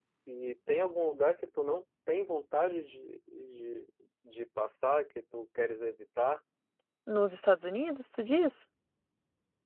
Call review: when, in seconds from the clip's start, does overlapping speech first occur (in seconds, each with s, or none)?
none